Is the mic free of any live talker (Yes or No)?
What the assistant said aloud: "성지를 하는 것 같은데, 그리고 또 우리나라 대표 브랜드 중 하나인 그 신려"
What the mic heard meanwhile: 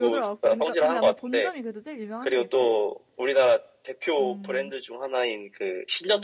No